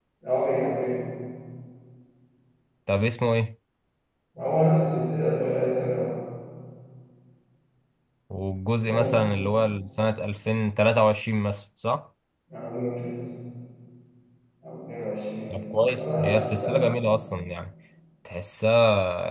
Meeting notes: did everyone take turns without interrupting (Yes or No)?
No